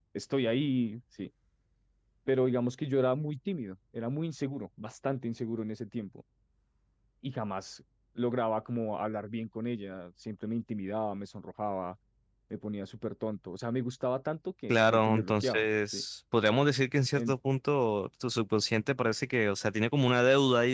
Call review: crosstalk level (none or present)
present